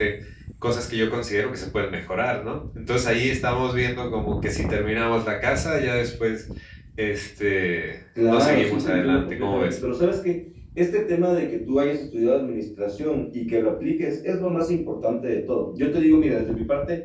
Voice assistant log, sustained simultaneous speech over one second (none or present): present